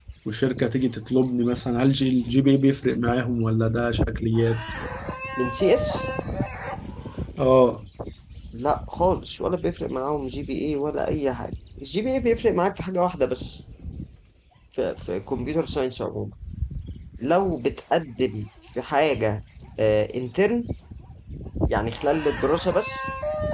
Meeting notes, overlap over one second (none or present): none